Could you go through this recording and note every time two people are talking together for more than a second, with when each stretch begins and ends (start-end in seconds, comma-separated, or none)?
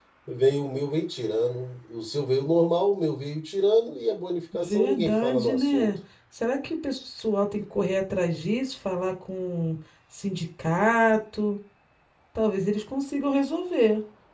4.5-6.0